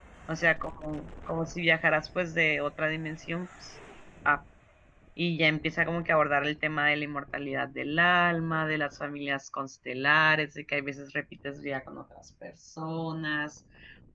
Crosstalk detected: No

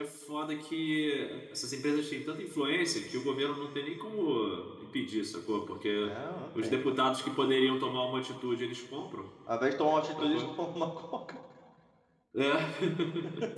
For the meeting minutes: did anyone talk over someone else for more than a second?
No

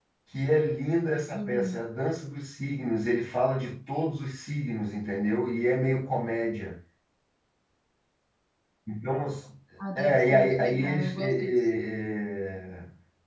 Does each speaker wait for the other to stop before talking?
No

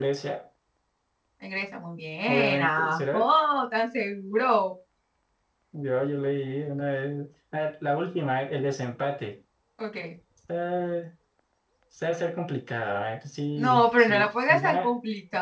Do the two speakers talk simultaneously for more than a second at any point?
Yes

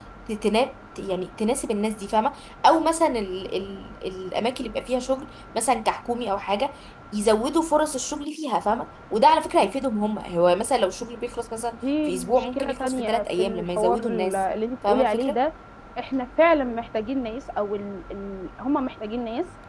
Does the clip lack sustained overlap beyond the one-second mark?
No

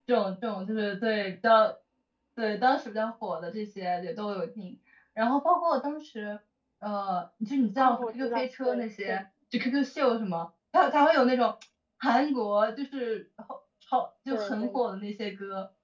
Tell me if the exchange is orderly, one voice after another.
No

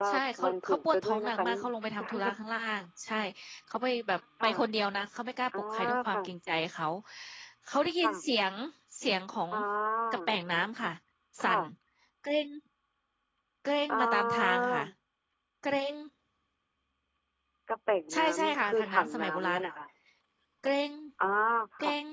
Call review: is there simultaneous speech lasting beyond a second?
Yes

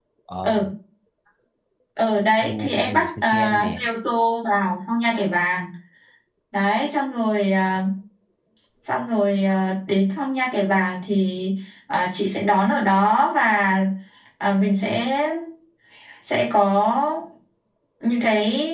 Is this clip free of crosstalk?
No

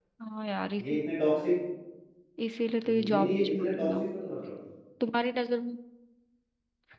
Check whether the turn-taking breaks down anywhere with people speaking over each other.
Yes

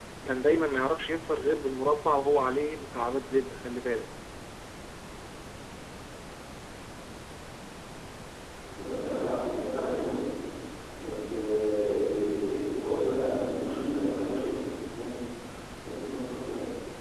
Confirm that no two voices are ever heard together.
Yes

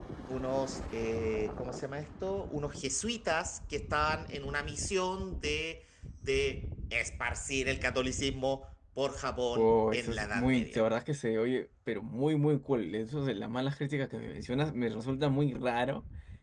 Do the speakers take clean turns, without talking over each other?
No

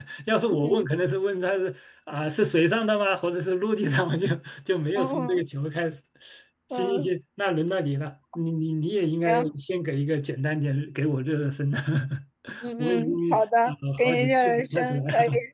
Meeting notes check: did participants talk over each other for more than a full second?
Yes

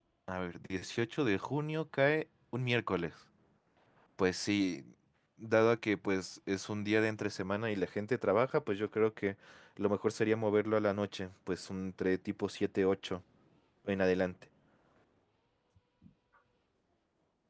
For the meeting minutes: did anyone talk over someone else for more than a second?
No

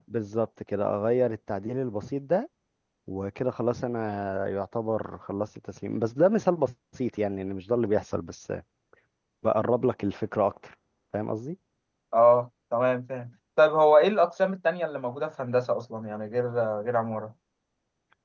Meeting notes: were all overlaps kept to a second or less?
Yes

